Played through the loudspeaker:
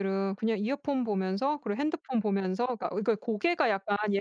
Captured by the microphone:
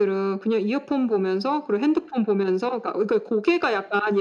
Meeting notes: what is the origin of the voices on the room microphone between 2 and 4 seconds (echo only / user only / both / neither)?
echo only